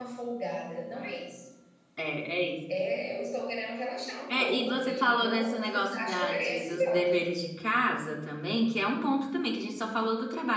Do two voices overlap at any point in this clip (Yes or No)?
Yes